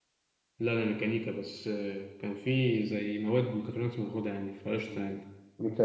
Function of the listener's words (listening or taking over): taking over